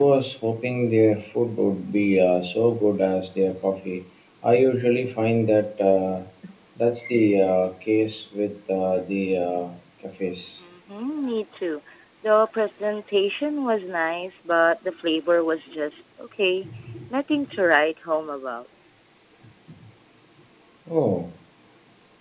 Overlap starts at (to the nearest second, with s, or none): none